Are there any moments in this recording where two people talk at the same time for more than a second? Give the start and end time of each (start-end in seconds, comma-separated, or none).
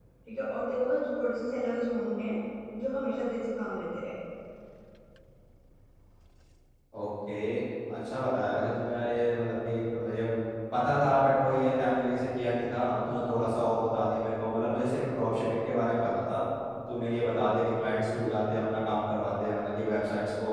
none